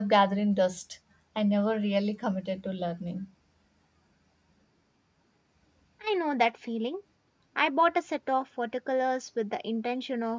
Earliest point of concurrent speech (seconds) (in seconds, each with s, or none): none